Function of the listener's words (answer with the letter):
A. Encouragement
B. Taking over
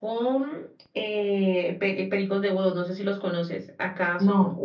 A